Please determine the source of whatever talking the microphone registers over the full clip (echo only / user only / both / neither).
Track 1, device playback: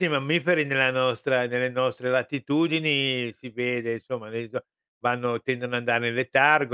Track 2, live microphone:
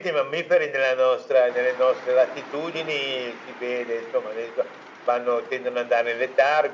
echo only